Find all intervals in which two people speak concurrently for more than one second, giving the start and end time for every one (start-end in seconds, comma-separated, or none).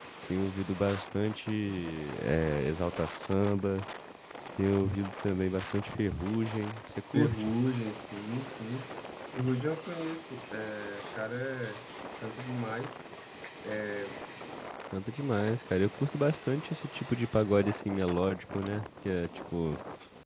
none